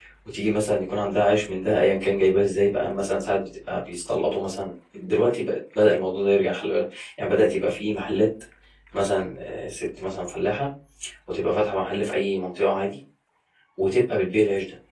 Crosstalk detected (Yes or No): No